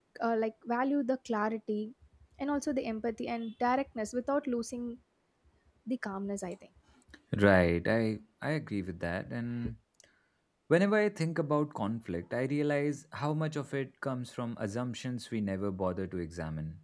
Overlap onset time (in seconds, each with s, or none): none